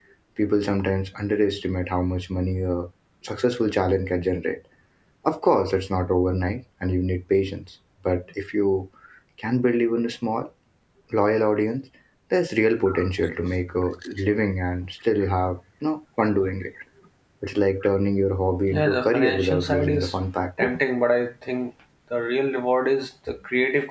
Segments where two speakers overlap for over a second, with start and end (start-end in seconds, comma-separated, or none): 18.7-20.1